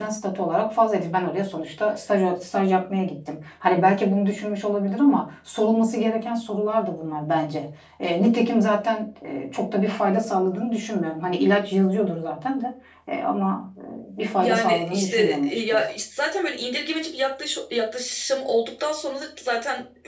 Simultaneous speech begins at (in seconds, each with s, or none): 14.4 s